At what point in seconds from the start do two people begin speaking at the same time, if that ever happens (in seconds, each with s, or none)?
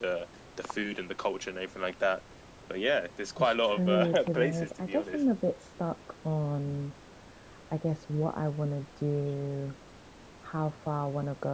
3.4 s